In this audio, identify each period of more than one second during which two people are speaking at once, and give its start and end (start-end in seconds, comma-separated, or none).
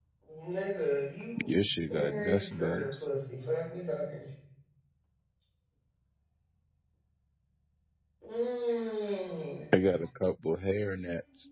1.4-3.0